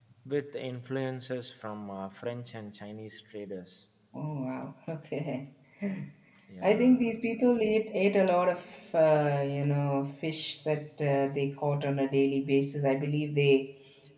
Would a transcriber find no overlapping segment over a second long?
Yes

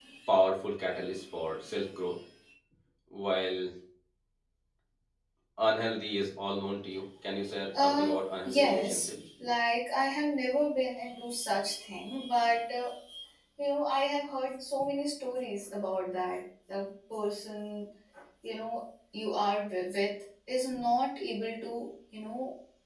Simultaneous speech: Yes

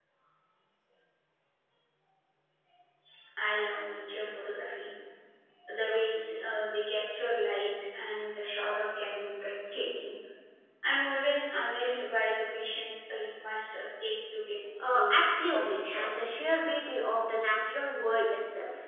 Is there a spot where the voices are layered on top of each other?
Yes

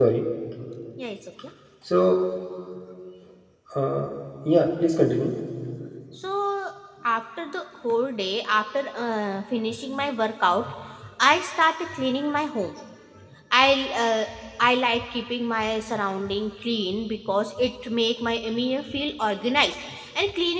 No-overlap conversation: Yes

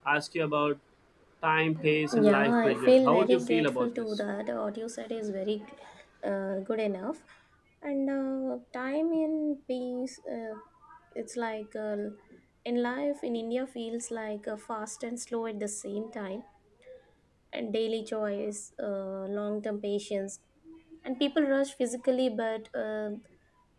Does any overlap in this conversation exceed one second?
Yes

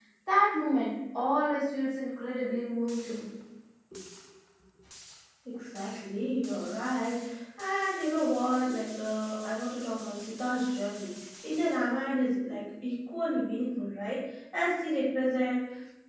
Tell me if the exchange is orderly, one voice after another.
Yes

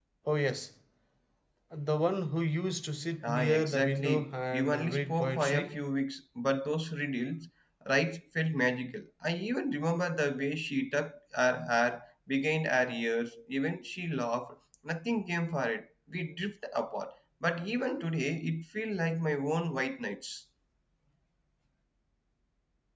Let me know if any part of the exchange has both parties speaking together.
Yes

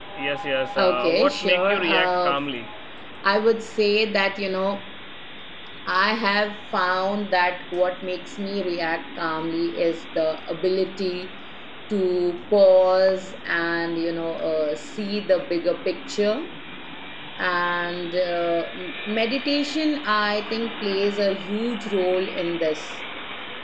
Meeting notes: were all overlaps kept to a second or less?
No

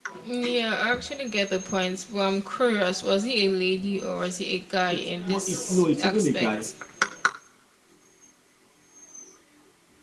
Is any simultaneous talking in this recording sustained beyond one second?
Yes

